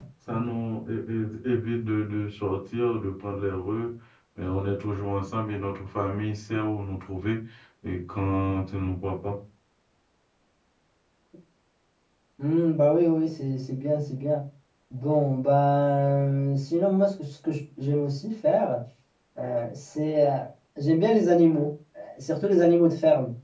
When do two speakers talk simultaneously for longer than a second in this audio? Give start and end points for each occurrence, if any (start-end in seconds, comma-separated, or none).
none